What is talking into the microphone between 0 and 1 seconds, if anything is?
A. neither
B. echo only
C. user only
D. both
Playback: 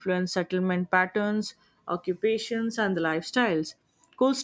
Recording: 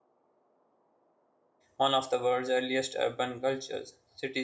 A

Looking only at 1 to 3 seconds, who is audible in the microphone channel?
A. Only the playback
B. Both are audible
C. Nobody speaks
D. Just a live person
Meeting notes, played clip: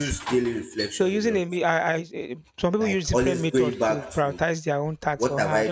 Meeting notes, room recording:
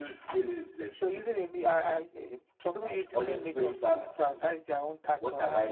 A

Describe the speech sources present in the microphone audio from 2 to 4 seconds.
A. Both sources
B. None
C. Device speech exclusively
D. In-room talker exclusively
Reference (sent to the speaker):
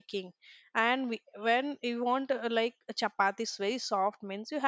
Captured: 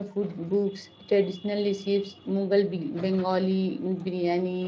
D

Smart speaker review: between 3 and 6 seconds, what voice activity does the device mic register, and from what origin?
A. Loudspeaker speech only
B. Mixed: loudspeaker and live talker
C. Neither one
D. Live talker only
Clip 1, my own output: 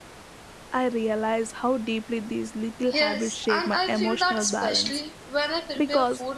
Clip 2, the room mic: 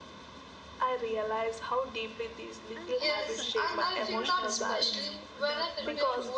B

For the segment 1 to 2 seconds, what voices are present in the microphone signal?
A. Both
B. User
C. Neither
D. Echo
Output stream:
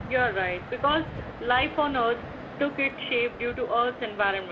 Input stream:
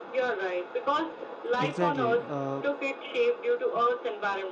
A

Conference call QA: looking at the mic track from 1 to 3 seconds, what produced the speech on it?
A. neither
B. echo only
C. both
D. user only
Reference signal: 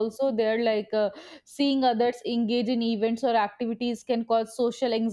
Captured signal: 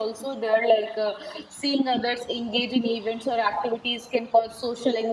B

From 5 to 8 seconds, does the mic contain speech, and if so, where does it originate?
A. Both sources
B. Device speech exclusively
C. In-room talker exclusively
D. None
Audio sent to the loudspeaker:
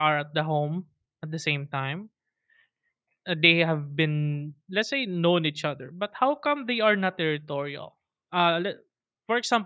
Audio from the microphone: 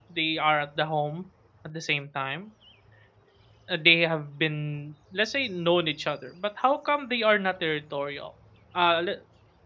B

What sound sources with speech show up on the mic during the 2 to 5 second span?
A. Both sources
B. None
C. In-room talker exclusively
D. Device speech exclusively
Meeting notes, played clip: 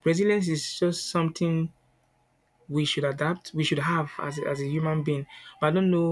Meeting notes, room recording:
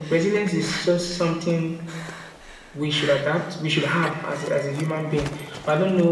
D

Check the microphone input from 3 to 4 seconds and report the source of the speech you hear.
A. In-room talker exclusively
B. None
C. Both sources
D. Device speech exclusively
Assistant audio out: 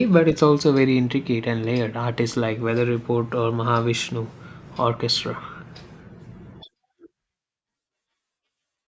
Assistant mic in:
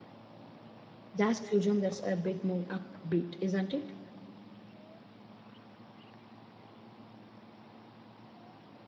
A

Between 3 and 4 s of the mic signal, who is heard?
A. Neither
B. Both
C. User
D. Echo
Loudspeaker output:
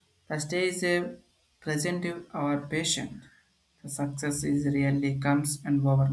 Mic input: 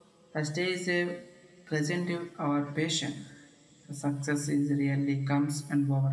D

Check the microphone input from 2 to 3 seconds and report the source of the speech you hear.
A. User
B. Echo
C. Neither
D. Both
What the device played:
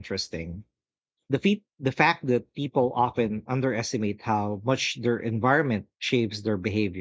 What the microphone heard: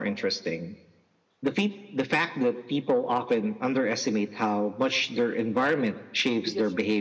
B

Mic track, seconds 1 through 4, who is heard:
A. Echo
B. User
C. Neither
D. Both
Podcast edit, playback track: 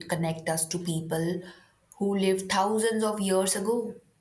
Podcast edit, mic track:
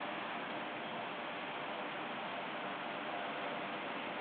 C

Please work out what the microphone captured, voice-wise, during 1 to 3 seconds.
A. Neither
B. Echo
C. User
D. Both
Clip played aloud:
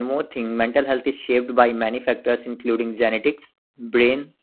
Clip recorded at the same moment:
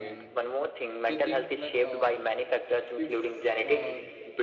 D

